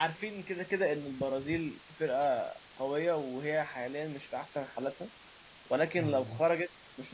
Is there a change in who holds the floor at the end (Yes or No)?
No